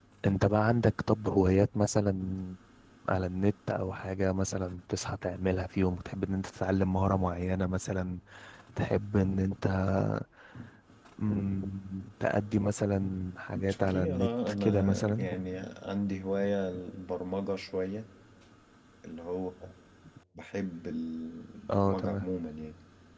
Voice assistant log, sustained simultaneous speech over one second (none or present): present